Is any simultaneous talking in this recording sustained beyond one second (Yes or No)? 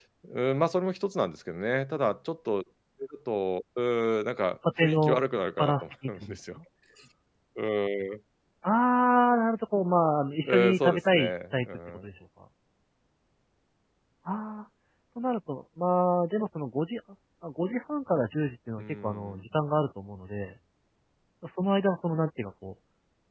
Yes